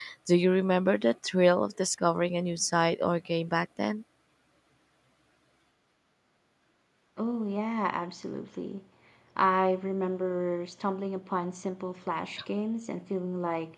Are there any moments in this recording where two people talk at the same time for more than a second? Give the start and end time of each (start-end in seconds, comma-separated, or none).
none